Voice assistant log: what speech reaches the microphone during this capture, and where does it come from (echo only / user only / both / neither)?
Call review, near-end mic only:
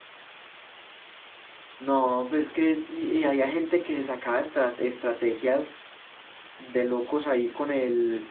user only